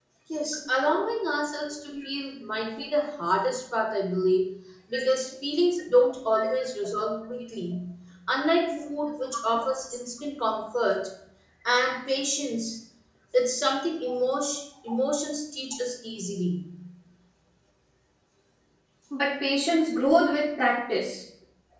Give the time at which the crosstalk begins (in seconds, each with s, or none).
none